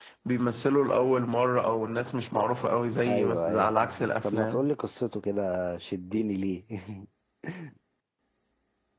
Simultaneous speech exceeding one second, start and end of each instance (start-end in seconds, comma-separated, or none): 3.1-4.7